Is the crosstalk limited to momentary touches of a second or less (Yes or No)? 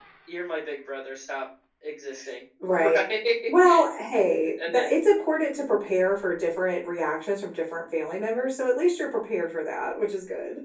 Yes